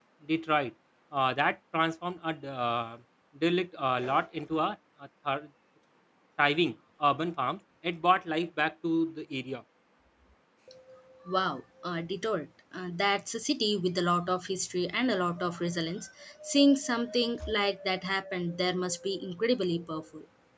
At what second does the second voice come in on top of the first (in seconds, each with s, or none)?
none